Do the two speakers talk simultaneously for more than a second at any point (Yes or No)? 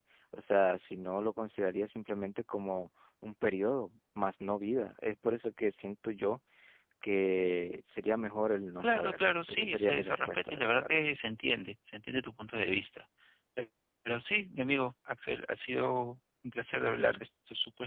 Yes